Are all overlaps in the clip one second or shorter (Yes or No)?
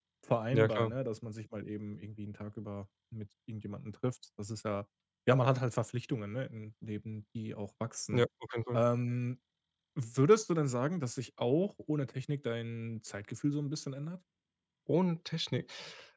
Yes